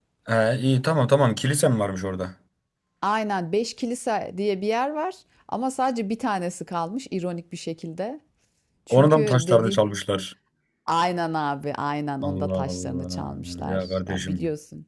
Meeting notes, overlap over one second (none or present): present